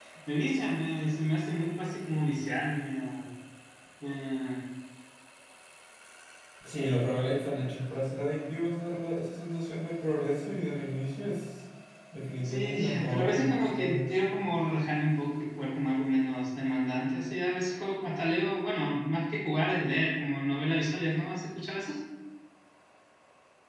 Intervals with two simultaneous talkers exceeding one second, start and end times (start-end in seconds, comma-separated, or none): 12.4-14.1